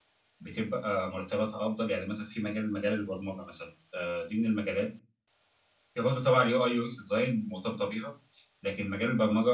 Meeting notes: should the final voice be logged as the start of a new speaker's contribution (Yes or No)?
No